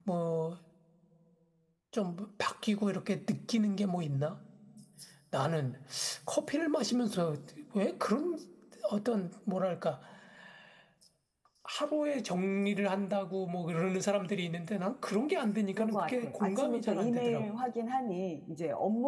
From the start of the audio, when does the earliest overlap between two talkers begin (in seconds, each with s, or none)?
15.8 s